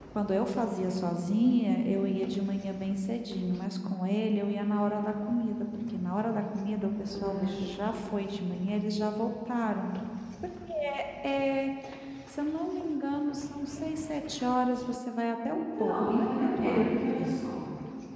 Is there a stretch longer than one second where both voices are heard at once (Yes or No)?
Yes